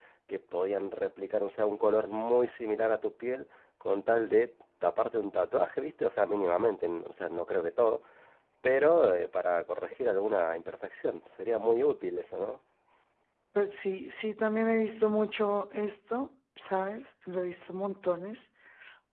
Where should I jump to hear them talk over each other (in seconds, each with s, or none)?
none